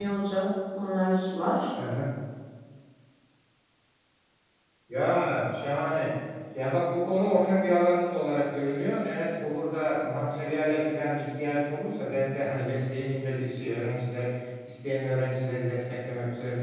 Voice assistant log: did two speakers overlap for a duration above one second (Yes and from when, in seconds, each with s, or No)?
No